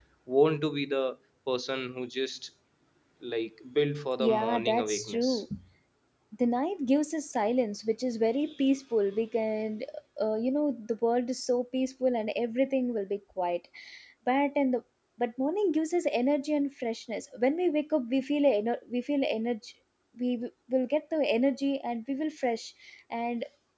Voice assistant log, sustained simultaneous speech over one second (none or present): present